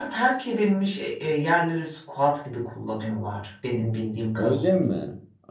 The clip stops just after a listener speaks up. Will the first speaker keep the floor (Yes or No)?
No